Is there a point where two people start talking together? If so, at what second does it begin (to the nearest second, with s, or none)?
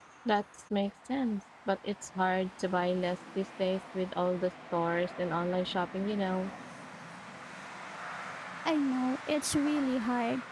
none